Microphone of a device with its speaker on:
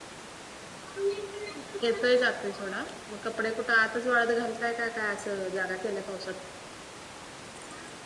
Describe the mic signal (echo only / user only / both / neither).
user only